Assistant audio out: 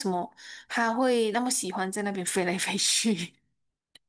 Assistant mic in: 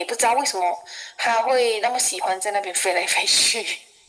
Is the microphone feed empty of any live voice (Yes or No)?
Yes